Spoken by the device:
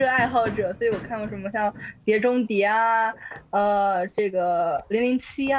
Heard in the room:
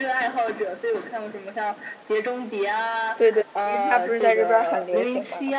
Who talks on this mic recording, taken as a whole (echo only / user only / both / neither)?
both